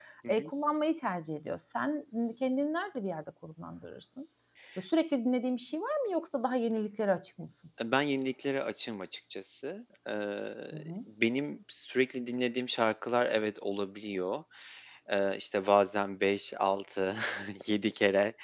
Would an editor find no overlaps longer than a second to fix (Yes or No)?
Yes